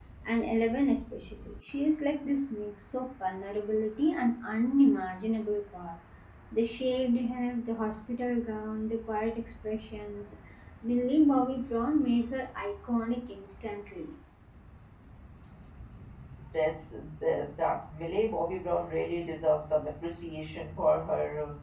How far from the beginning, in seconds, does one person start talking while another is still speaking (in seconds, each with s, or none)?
none